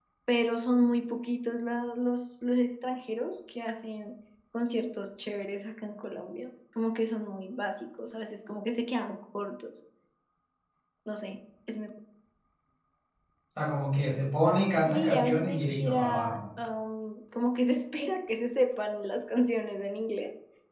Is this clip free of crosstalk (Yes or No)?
No